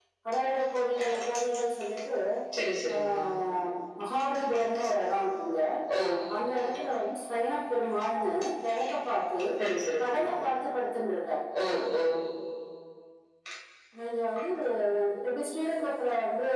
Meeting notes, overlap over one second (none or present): none